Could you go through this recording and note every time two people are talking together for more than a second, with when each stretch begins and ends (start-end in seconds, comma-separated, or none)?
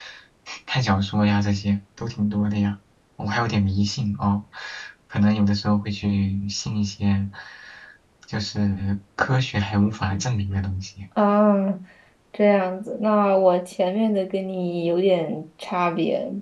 none